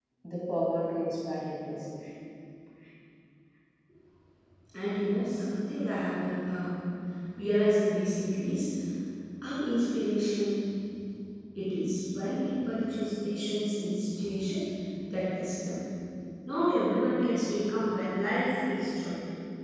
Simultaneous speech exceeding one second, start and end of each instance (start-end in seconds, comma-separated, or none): none